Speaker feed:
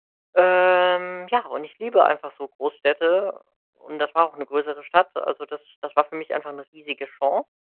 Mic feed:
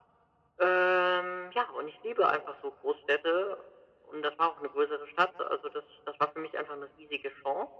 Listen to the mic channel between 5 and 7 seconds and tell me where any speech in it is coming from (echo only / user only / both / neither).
echo only